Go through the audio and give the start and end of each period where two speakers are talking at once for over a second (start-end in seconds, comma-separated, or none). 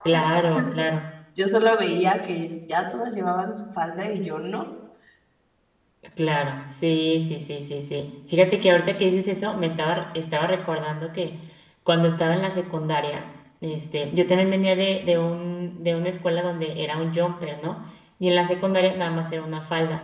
none